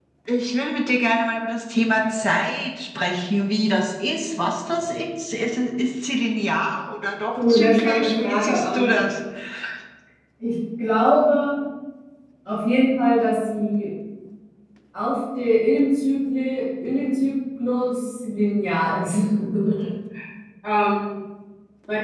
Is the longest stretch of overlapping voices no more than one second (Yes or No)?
No